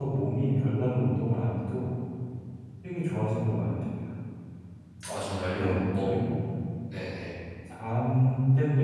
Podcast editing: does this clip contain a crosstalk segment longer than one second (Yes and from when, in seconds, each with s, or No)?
No